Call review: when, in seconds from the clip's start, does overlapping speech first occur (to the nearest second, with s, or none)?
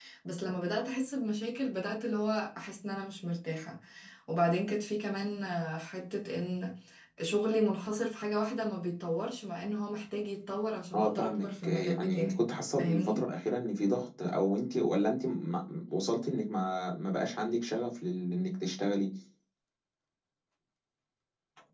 11 s